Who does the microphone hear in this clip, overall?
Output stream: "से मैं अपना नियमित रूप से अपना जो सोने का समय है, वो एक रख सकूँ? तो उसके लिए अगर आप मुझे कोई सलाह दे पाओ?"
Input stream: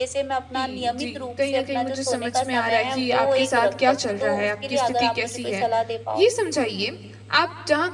both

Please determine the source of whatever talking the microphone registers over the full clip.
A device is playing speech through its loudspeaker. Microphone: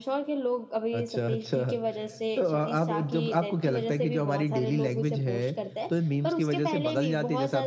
echo only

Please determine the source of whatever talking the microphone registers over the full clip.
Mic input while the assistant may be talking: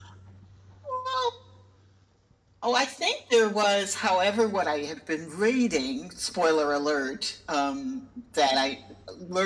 echo only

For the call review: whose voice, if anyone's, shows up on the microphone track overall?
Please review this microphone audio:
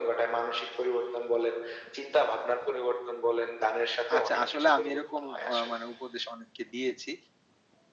both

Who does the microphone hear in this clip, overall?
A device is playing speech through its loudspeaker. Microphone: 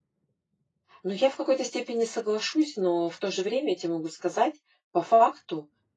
user only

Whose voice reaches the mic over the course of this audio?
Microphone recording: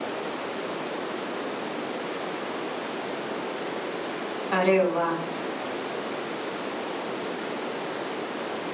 user only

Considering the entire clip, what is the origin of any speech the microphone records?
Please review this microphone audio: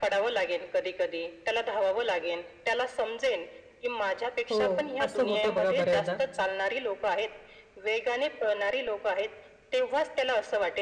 both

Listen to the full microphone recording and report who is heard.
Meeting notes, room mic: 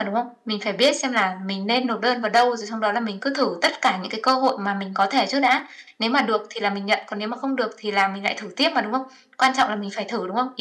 echo only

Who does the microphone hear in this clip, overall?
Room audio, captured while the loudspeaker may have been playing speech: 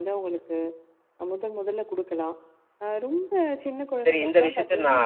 both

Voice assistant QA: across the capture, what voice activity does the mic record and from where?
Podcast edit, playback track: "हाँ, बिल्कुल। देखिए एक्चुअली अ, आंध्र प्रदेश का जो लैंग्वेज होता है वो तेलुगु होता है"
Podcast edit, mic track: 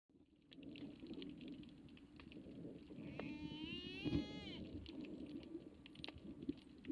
neither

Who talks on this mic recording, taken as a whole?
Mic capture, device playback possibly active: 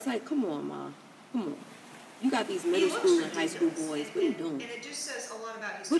both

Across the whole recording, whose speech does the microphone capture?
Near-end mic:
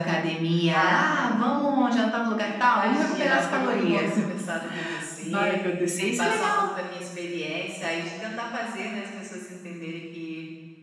both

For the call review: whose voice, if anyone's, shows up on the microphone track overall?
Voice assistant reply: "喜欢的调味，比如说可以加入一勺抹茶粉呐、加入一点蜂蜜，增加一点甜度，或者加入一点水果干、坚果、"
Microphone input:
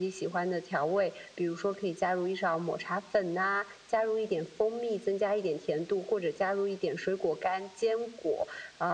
echo only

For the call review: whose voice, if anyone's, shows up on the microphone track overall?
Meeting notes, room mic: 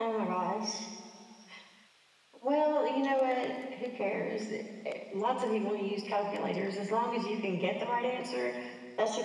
echo only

